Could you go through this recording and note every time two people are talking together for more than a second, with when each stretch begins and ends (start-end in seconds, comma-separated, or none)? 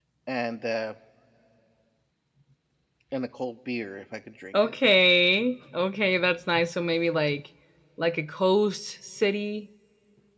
none